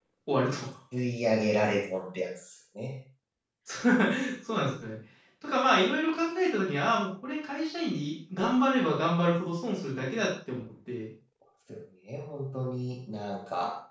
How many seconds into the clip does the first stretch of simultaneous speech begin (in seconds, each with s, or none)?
none